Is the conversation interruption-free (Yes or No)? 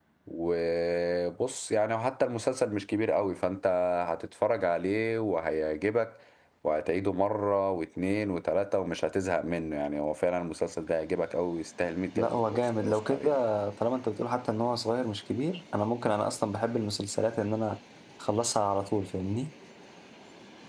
No